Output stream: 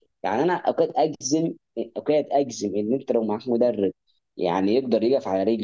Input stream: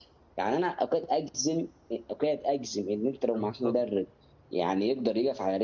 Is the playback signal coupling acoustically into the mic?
Yes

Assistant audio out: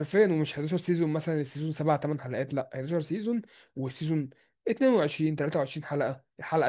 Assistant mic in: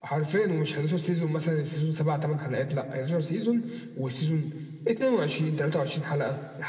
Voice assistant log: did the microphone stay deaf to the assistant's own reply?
No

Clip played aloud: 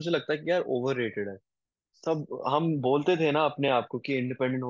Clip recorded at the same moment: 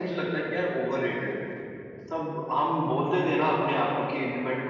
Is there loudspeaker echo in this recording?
Yes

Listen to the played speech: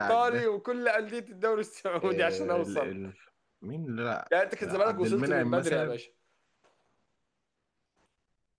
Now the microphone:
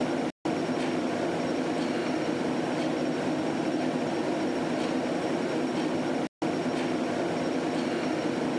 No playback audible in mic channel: Yes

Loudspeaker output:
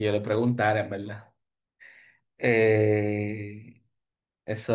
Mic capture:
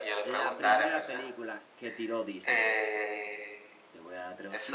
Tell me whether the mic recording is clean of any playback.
No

